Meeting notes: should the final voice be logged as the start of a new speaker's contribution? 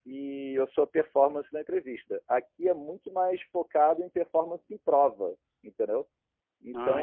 No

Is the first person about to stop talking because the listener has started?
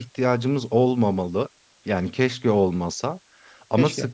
No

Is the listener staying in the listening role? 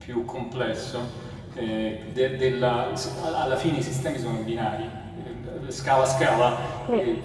Yes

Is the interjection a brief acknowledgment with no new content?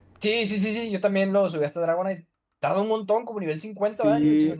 No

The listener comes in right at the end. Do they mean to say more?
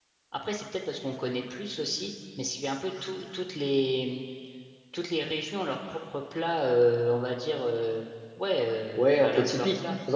Yes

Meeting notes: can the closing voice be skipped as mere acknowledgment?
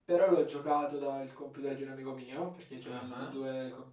Yes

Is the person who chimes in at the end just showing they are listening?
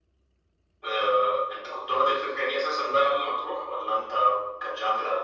No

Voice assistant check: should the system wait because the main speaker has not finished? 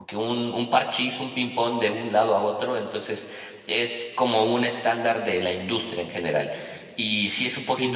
No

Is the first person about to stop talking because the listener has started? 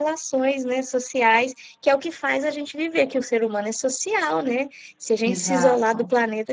No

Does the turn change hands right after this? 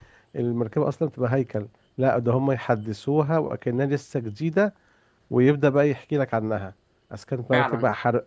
No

